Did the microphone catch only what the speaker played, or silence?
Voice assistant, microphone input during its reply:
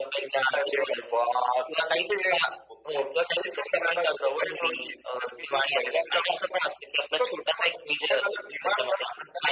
Yes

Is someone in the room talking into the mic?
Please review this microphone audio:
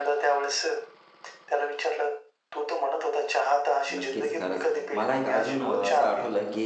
Yes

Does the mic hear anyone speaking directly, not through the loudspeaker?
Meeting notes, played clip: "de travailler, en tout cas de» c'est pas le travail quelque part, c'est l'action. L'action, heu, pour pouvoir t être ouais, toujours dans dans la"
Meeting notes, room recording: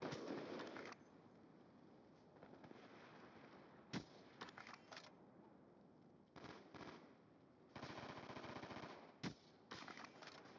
No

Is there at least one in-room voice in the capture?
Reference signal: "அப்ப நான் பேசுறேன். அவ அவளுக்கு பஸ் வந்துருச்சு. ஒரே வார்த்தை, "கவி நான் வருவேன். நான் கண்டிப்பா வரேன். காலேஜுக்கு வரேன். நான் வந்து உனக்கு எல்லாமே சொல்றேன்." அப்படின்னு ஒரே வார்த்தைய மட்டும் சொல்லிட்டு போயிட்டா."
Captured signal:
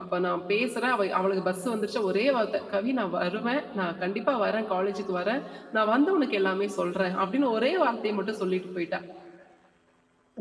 No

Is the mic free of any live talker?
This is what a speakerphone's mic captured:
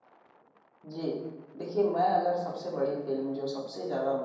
No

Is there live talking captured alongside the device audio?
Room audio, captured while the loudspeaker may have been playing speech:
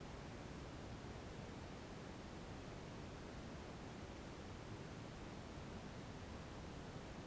No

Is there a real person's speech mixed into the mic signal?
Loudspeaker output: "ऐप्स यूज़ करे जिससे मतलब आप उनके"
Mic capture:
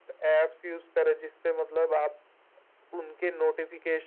No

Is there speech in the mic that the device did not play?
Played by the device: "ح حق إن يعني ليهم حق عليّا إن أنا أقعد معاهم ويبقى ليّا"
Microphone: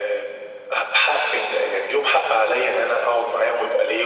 No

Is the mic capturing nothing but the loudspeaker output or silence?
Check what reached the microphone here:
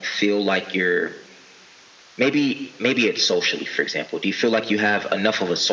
Yes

